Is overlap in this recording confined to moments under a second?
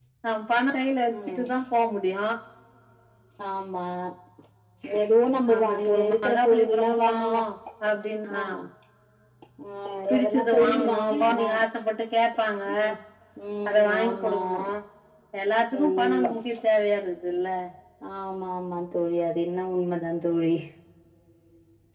No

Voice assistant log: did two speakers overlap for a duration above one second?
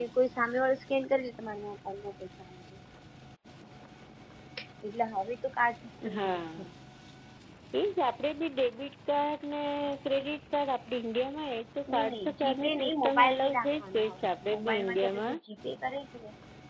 Yes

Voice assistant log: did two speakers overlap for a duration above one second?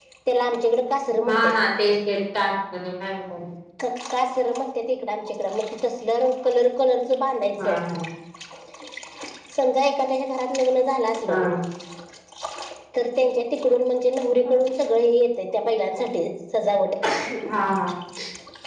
No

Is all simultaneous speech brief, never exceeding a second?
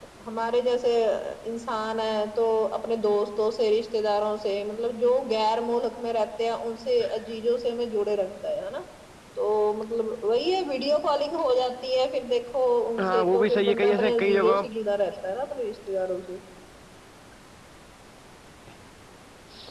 No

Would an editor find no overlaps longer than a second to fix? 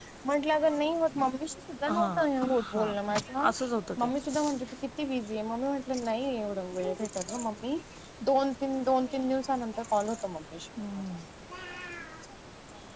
Yes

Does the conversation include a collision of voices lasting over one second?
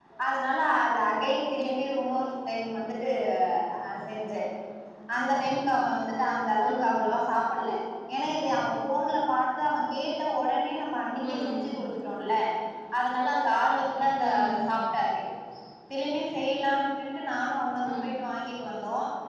No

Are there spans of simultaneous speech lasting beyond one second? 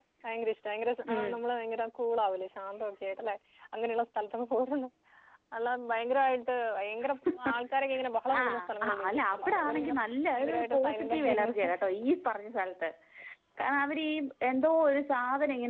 Yes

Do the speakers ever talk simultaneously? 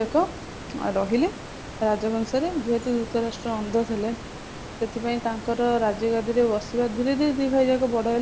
No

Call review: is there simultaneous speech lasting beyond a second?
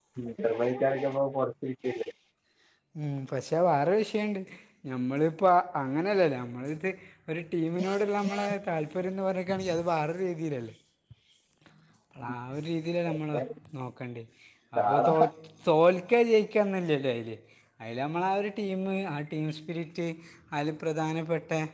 No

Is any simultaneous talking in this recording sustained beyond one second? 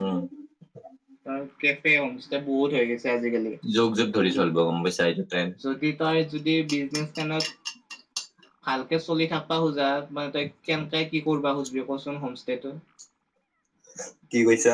No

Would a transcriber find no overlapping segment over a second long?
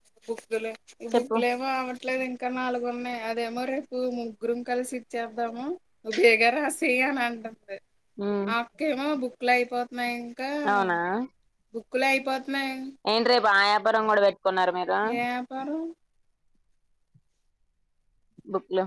Yes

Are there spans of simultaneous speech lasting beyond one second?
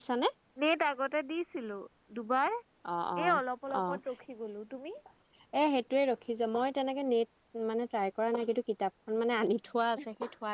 No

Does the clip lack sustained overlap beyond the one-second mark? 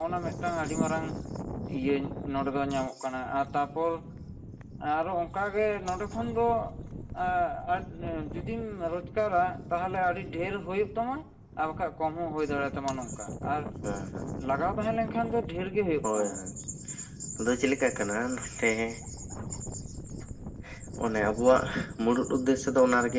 Yes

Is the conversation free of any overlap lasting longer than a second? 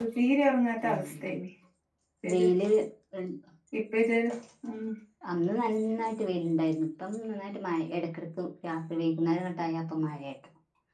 Yes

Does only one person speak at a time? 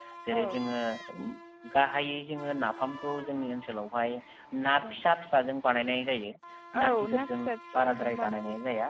No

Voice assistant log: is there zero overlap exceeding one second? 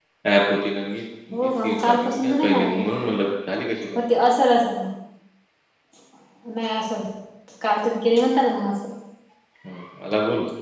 No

